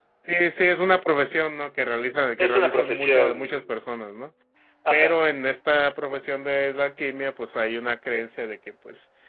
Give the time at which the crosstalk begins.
2.4 s

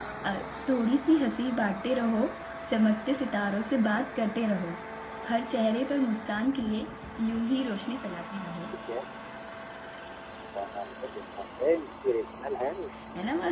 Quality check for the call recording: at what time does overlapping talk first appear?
none

